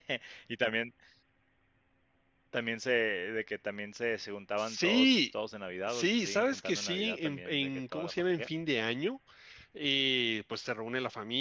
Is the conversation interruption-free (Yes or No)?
No